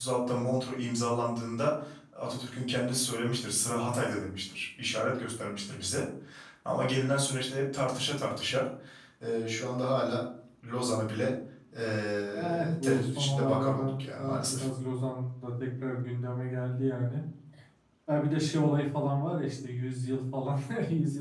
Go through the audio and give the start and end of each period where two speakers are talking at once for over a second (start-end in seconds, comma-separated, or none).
12.3-14.6